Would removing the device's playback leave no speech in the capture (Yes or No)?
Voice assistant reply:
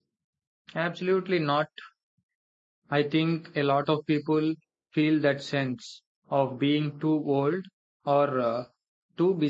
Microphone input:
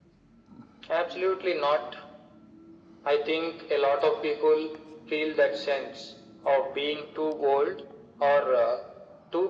Yes